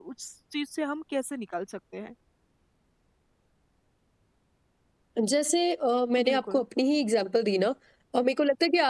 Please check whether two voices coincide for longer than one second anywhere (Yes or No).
No